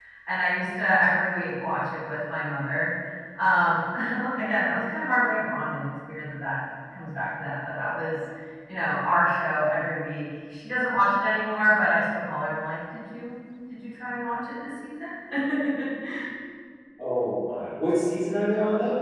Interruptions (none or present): none